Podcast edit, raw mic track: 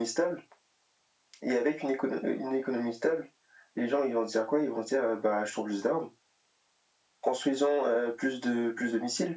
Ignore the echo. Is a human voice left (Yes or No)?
No